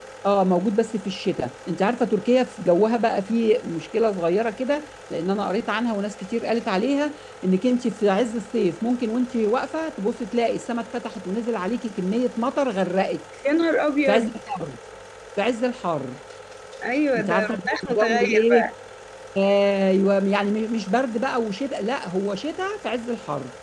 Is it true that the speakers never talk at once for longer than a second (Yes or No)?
No